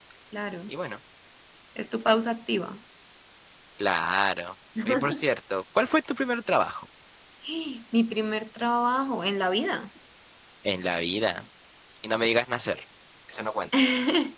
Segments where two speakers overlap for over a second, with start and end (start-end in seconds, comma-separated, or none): none